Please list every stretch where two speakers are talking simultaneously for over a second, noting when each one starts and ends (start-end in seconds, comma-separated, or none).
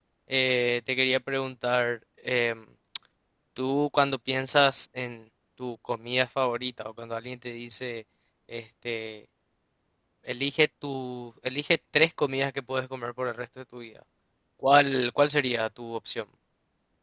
none